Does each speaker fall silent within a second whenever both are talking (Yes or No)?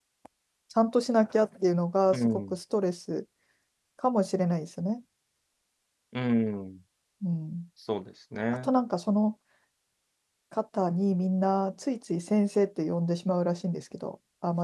Yes